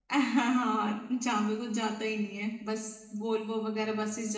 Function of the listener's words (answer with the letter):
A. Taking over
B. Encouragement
B